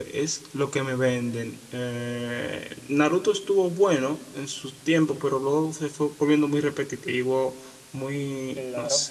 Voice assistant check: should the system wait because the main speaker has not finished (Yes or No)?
Yes